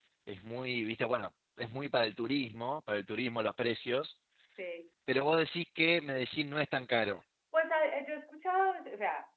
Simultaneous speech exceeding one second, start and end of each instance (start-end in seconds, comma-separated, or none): none